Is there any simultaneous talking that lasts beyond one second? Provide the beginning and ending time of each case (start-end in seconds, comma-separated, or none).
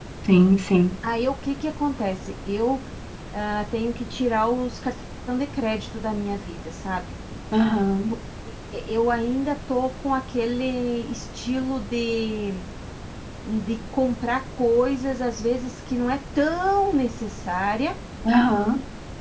none